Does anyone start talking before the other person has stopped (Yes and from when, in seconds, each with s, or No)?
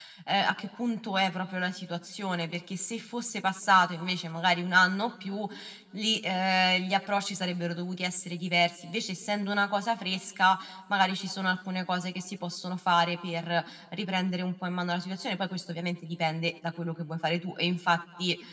No